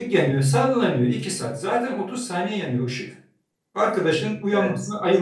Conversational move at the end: listening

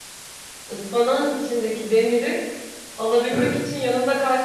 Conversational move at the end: listening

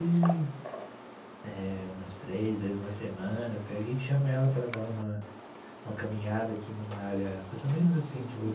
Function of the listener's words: listening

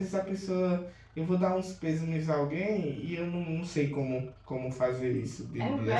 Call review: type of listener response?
taking over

